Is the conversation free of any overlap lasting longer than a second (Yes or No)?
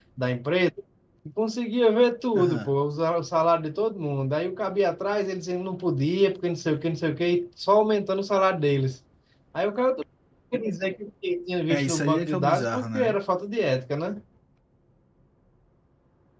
No